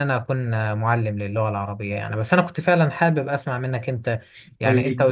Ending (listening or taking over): listening